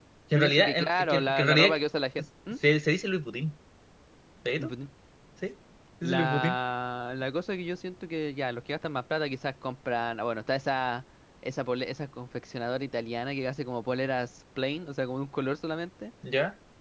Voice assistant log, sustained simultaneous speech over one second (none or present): present